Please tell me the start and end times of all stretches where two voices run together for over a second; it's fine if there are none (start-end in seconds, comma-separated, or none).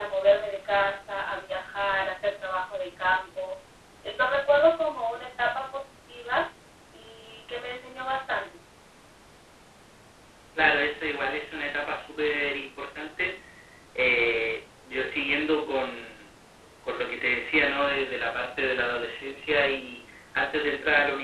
none